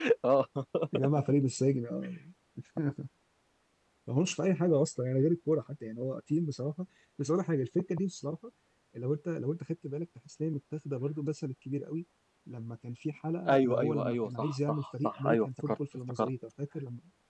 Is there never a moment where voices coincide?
No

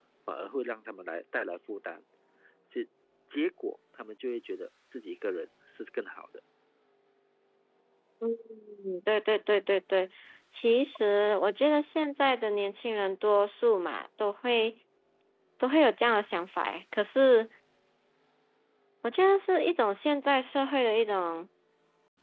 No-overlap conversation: Yes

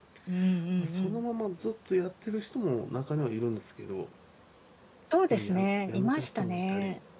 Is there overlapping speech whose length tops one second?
Yes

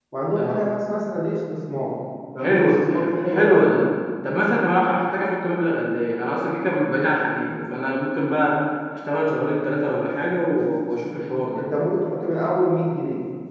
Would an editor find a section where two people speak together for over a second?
Yes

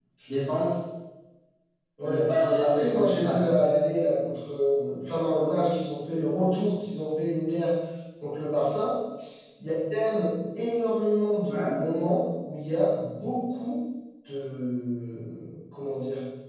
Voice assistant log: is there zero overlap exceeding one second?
No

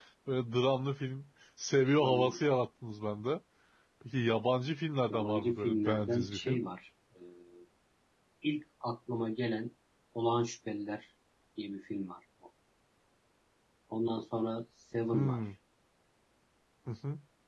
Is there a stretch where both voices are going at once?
Yes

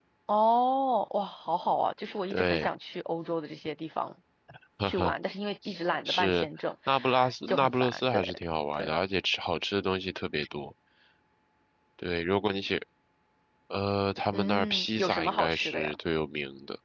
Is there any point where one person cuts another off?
Yes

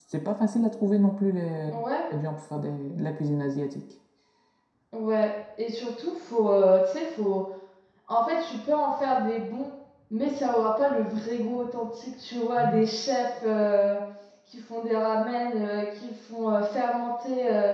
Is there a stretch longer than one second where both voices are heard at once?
No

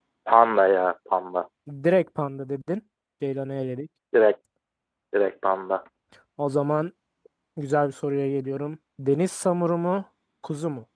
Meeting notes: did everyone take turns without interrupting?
Yes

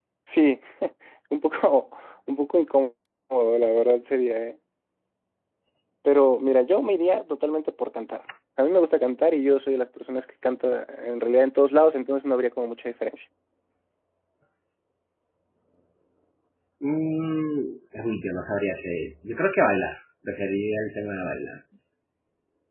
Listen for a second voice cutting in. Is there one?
No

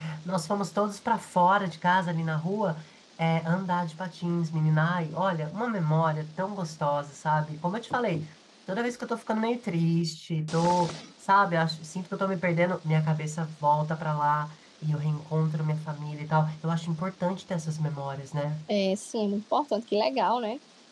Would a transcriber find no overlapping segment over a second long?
Yes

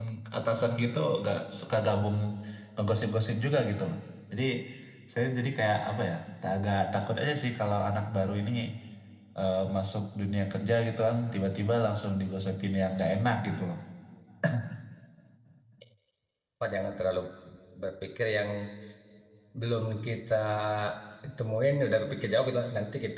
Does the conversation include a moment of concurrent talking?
No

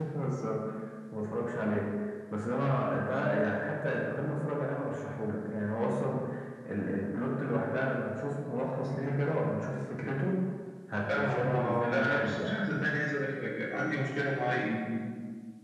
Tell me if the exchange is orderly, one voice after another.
No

